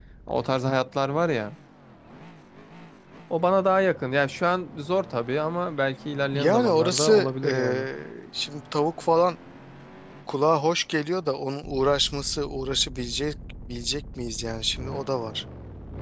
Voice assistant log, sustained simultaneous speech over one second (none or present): present